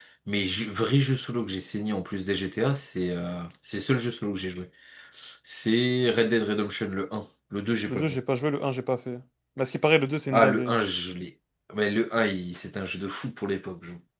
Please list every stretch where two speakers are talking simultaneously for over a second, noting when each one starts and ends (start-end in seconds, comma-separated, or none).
none